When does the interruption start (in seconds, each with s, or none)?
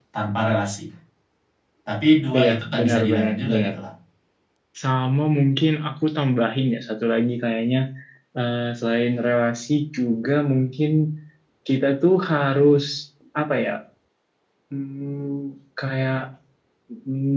2.4 s